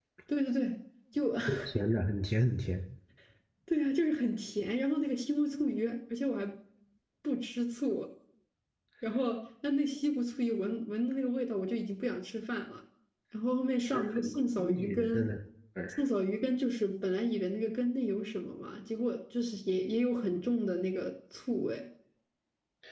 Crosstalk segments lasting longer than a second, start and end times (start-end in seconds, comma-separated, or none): 13.9-15.2